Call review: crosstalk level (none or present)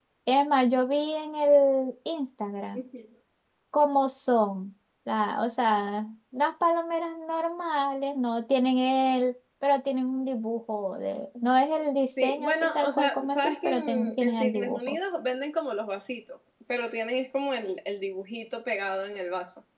present